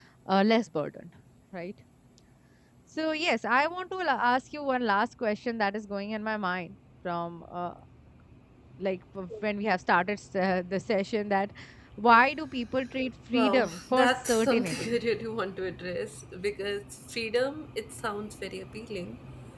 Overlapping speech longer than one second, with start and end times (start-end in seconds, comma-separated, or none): 13.3-15.0